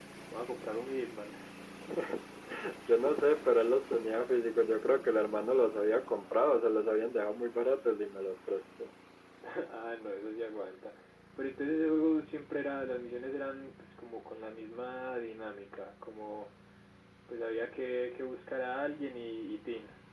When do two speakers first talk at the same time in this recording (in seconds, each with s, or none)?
none